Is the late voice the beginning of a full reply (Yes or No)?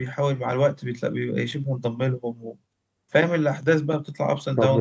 Yes